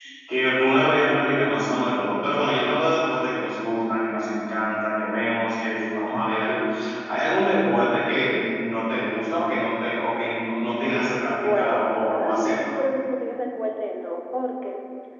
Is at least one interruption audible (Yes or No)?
Yes